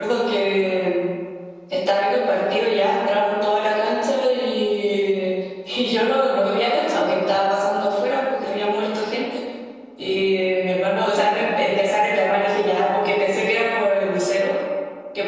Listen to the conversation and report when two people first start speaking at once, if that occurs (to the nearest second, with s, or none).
none